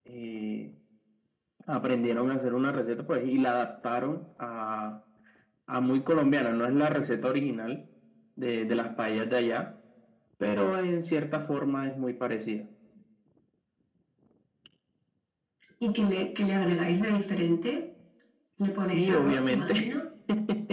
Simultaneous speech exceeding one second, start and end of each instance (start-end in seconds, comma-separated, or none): 18.8-20.0